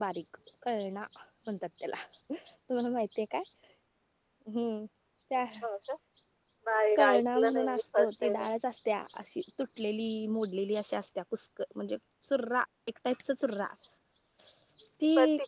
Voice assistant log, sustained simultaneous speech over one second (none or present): present